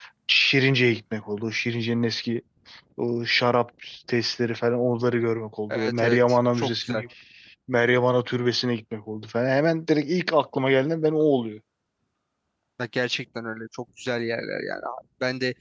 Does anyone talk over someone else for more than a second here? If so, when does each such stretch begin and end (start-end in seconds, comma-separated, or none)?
5.7-7.0